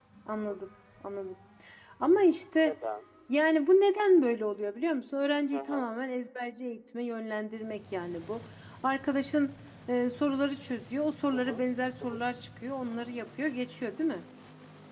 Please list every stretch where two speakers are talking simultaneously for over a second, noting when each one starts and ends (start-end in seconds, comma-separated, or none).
none